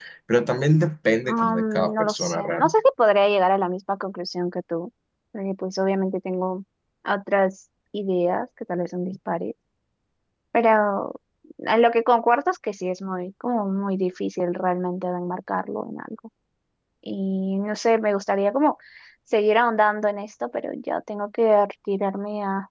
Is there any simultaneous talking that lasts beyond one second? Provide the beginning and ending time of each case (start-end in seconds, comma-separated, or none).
1.2-2.8